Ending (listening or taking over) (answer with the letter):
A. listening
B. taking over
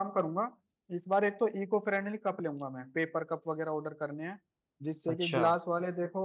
A